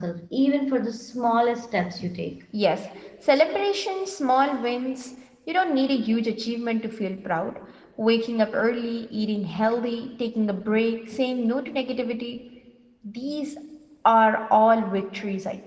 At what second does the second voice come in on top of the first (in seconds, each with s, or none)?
none